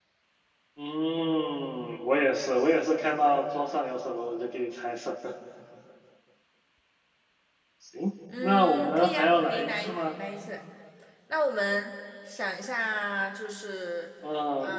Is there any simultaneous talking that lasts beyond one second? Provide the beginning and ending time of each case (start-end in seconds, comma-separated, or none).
8.4-10.0